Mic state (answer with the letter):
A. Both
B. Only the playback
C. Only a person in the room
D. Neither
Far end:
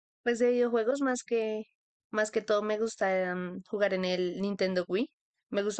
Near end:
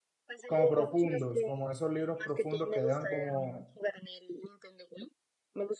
A